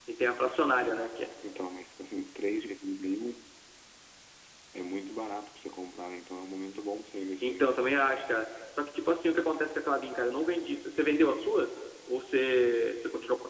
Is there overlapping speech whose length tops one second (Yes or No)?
No